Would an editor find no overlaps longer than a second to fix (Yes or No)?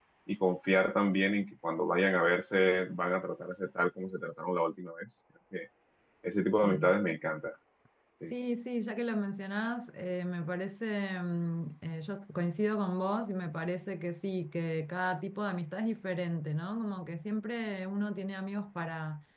Yes